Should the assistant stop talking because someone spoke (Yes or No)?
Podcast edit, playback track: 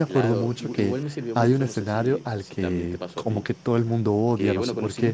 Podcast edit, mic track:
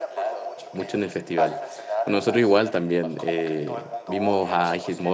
Yes